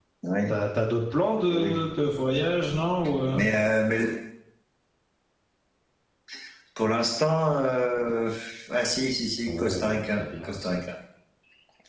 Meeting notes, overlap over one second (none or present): present